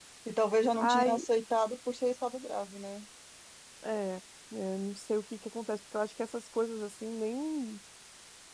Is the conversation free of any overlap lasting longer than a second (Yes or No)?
Yes